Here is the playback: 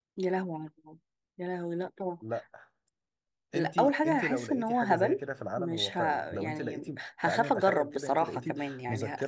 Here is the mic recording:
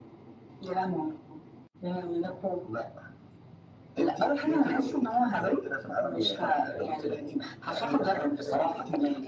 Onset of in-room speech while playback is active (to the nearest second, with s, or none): none